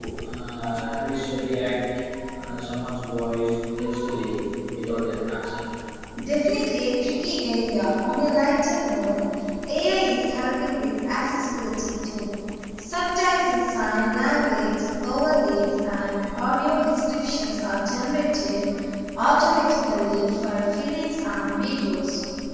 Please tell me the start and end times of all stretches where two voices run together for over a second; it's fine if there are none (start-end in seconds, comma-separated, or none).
none